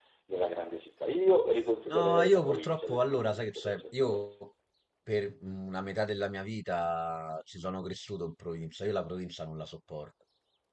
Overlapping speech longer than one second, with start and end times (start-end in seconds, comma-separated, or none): 1.9-4.2